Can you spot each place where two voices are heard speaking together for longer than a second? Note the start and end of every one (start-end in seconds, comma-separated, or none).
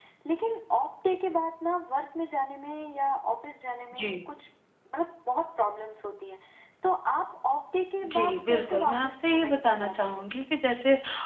8.1-10.2